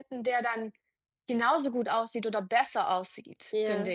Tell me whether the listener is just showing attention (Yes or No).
No